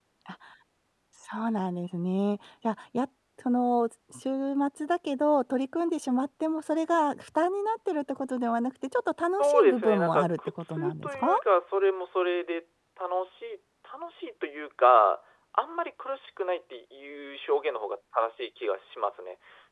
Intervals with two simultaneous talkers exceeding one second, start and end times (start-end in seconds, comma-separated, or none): 9.4-11.3